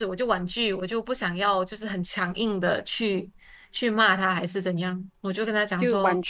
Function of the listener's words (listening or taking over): taking over